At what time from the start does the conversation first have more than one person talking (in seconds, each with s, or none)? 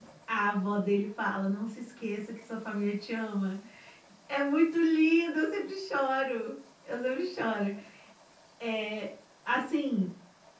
none